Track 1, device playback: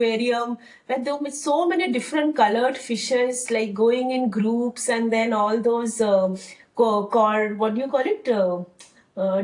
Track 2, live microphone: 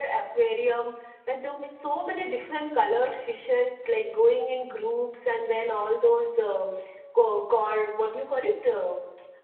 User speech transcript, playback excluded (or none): none